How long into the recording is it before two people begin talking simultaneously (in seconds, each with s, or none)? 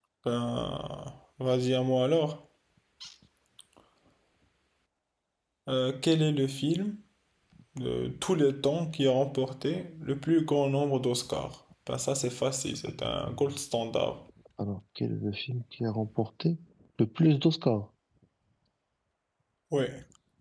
none